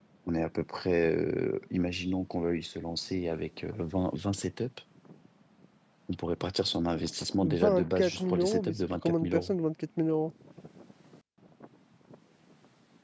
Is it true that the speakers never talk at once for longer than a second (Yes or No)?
No